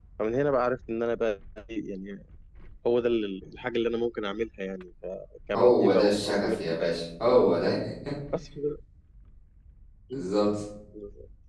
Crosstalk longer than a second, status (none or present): present